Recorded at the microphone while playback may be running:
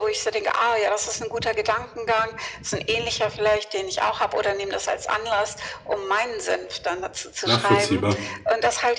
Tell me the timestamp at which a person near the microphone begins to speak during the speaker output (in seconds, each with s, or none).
7.4 s